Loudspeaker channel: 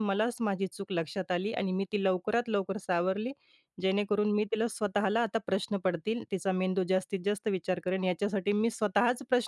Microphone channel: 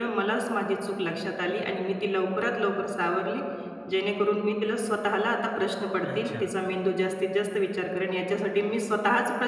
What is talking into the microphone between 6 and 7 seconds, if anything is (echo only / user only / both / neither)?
both